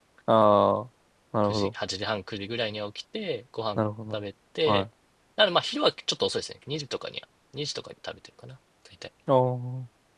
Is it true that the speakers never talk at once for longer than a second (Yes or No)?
Yes